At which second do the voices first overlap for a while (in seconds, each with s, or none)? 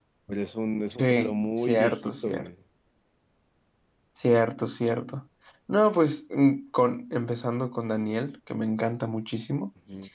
1.0 s